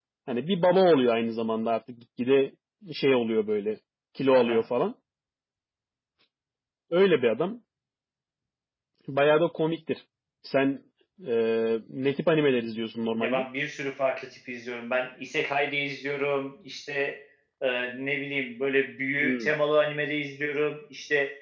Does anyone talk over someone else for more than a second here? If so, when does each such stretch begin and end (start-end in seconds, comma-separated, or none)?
none